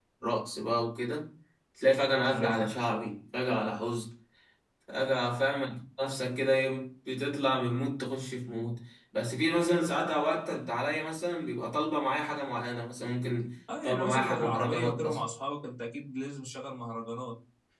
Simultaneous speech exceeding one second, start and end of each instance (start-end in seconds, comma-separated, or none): 13.8-15.2